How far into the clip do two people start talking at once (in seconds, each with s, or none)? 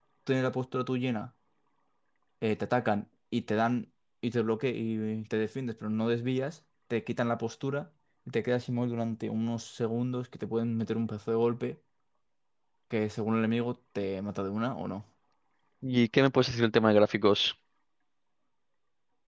none